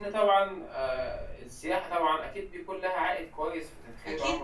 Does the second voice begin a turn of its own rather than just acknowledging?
Yes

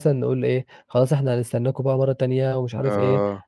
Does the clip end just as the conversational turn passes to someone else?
No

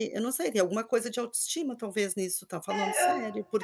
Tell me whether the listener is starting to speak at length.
Yes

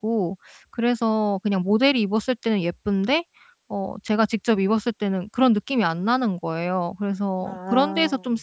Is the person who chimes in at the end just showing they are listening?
Yes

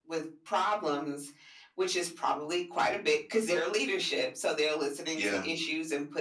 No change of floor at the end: Yes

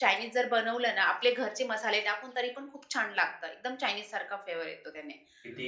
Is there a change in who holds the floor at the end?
No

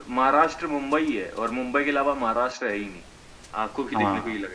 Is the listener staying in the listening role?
No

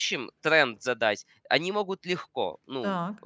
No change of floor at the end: Yes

